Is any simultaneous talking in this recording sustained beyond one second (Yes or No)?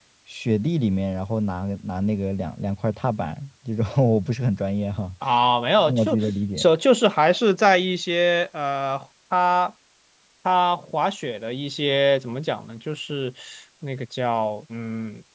No